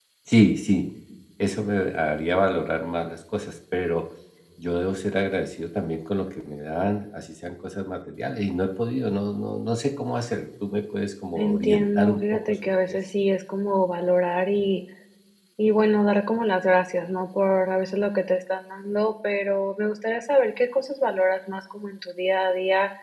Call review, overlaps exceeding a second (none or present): present